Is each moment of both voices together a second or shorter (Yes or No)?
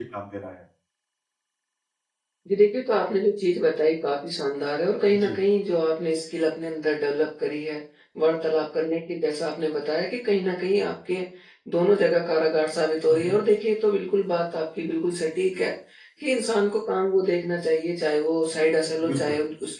Yes